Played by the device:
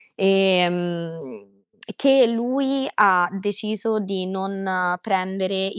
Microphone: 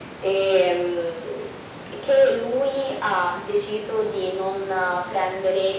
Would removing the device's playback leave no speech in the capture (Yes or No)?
Yes